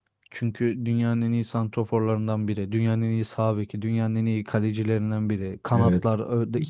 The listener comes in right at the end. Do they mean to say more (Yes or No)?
Yes